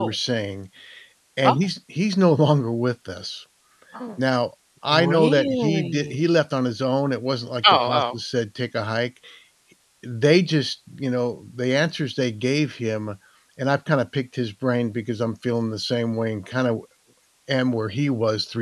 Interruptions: present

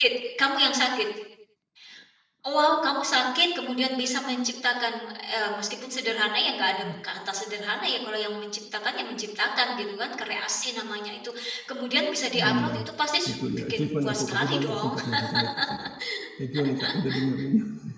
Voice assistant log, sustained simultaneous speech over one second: present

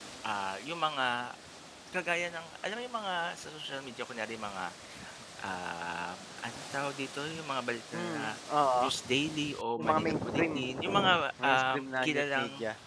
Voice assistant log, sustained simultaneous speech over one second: present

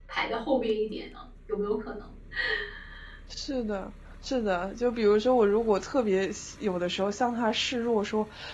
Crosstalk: none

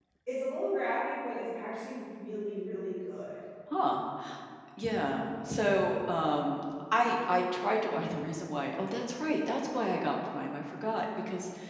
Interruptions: none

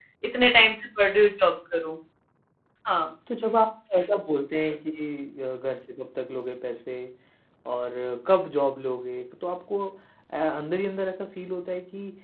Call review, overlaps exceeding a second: none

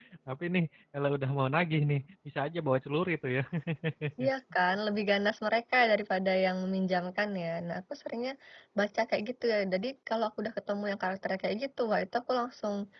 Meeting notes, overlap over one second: none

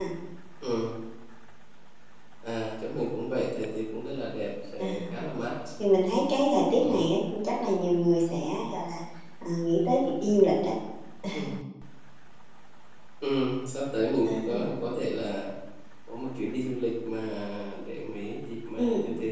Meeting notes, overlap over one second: none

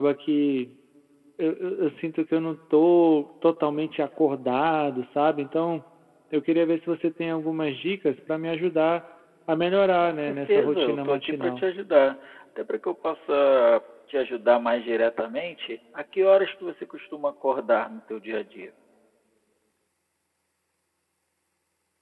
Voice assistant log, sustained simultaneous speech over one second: present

